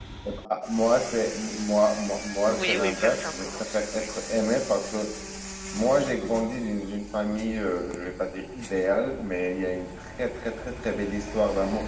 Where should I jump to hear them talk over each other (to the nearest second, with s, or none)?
2 s